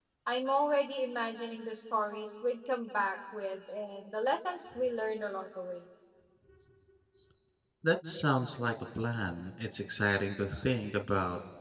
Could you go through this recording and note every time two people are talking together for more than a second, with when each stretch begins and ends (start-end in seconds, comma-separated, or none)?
none